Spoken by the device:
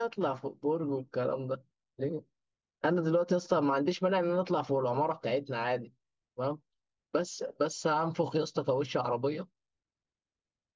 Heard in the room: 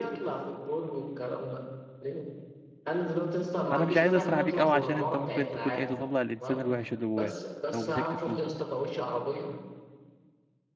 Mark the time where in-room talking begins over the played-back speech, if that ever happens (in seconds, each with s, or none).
3.6 s